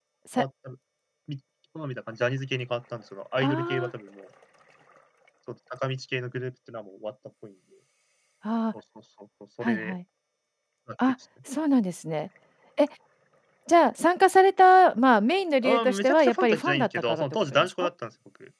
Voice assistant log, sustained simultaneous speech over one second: present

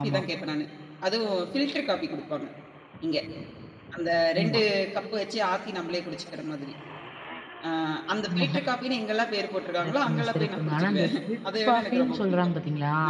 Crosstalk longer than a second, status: present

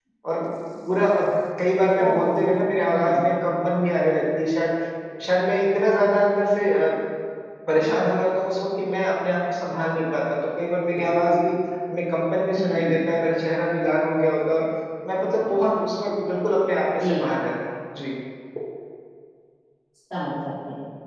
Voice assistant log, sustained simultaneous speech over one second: present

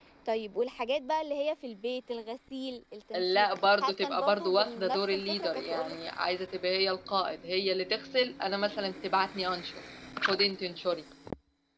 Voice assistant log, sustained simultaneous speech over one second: present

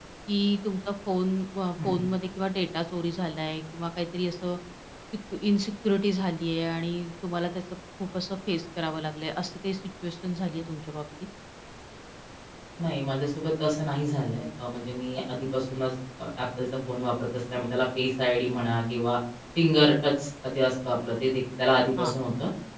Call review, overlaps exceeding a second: none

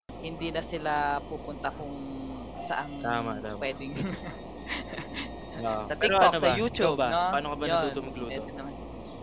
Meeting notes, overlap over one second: present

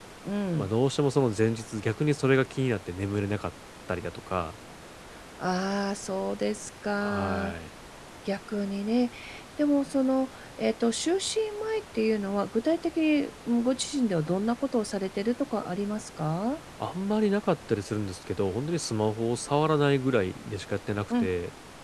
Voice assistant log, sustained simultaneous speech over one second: none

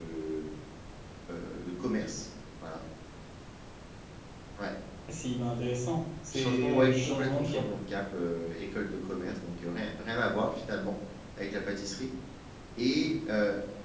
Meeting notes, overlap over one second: present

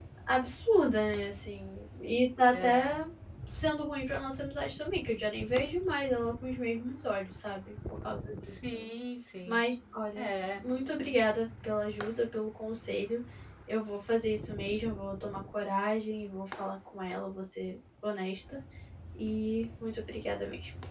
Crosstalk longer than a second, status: none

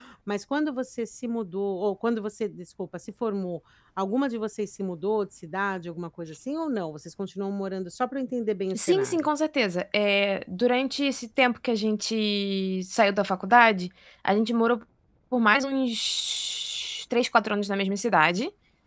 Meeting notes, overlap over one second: none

